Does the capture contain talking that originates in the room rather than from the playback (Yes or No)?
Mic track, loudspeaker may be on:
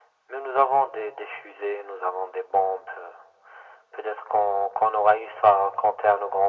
No